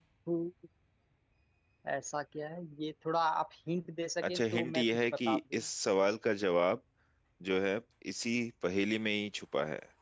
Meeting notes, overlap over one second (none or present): present